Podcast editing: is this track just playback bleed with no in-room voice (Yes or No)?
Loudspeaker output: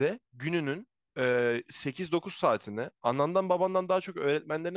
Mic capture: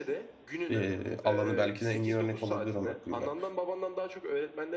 No